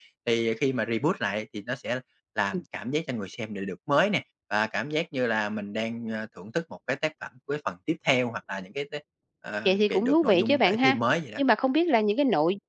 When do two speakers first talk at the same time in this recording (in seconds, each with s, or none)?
9.7 s